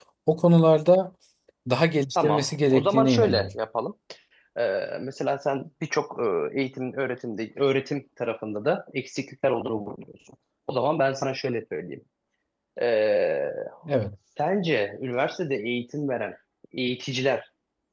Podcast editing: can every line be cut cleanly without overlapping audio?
No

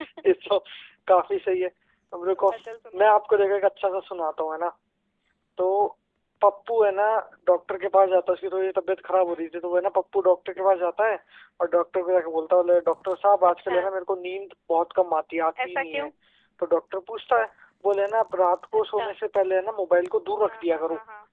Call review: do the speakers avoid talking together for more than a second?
Yes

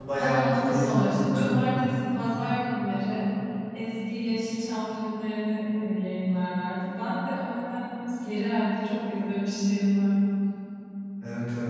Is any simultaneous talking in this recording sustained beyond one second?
Yes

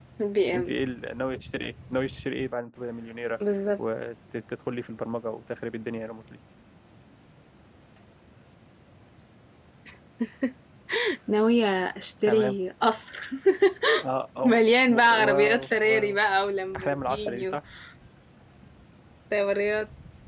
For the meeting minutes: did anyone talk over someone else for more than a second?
Yes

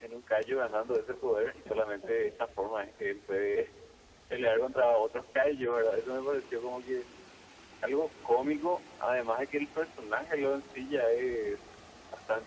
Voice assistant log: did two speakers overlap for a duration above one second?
No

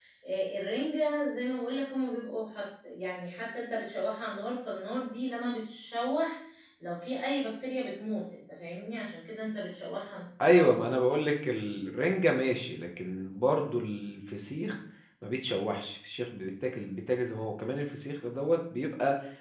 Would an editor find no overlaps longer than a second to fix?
Yes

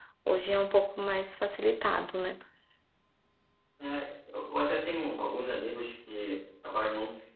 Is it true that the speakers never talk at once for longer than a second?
Yes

